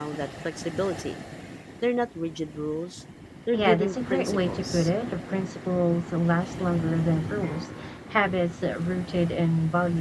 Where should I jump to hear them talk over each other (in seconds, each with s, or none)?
3.5 s